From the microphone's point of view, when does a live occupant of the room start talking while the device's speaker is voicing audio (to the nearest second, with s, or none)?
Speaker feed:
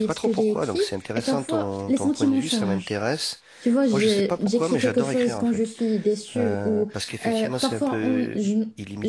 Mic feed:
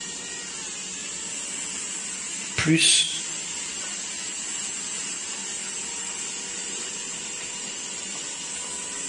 3 s